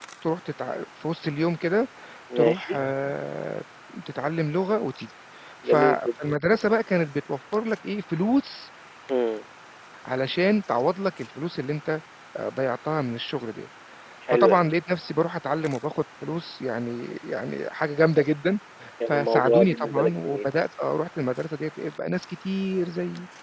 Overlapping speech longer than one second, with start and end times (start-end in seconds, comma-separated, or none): 19.1-20.6